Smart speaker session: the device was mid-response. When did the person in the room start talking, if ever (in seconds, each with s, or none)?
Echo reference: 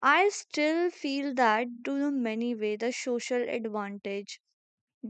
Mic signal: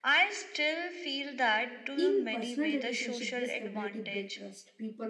1.9 s